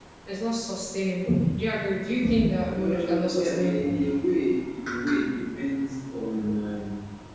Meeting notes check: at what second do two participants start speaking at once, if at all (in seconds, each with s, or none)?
2.7 s